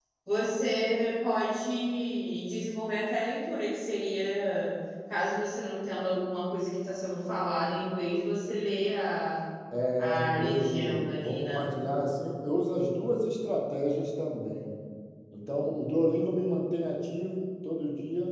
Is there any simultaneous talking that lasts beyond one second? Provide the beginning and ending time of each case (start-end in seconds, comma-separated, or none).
10.0-11.7